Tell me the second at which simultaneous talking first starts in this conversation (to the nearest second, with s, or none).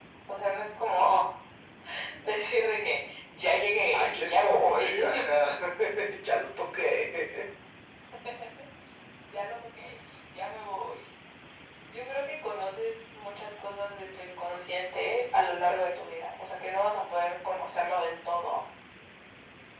4 s